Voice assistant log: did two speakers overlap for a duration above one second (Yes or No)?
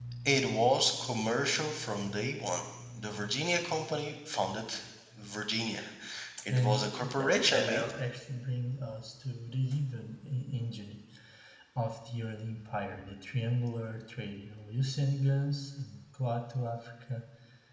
Yes